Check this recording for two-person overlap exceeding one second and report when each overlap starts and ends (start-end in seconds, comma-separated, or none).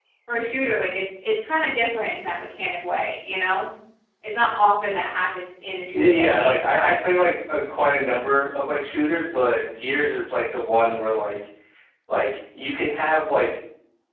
5.9-7.3